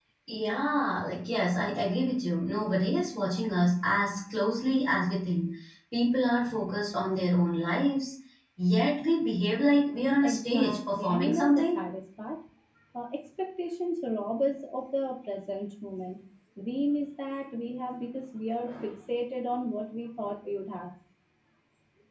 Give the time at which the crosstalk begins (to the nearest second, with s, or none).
10 s